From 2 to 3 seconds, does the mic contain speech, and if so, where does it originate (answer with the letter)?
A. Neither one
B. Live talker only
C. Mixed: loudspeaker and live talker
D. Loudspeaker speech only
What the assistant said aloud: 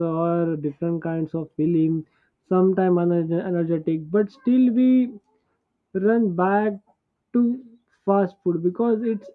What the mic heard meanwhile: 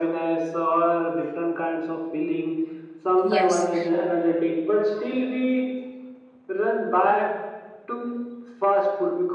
D